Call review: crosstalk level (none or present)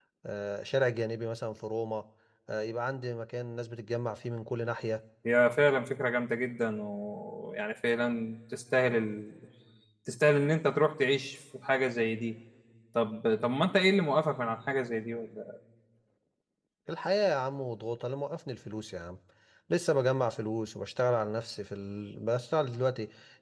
none